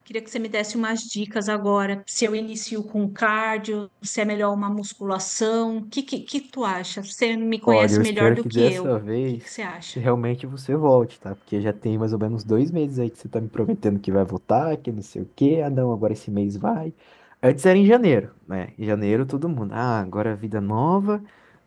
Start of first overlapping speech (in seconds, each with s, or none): 7.7 s